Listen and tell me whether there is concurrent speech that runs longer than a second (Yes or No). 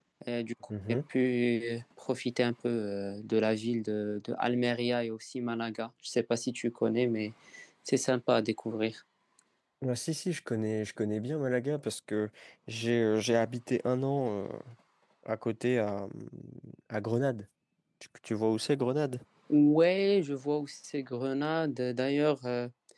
No